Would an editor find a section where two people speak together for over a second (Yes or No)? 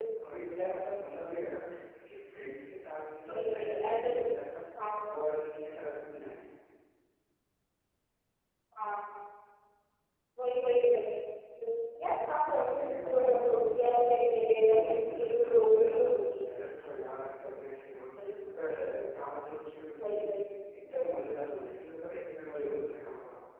Yes